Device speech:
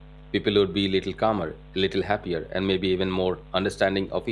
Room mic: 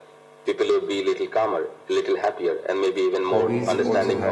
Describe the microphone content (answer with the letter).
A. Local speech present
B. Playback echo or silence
A